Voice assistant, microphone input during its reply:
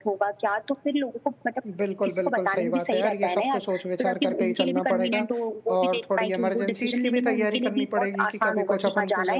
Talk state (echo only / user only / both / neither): both